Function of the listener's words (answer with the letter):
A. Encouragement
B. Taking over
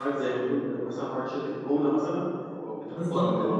B